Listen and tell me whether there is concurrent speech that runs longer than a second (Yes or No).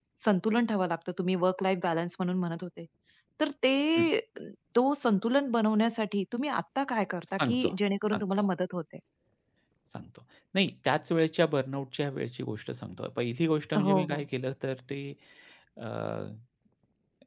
No